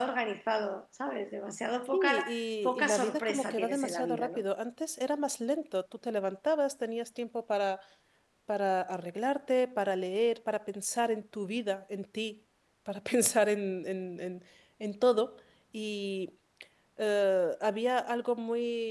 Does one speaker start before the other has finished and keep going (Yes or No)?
Yes